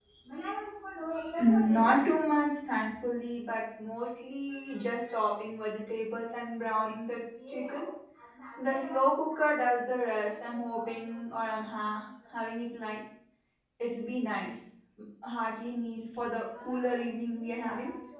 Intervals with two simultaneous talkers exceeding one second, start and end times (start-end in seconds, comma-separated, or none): none